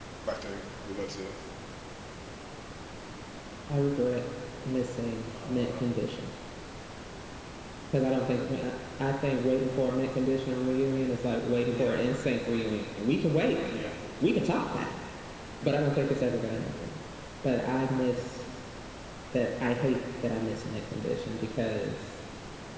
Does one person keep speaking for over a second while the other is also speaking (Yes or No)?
No